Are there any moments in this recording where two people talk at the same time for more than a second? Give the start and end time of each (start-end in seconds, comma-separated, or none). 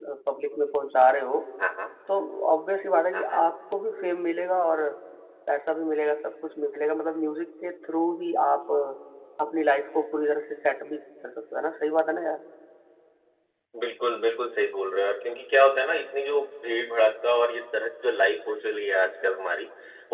none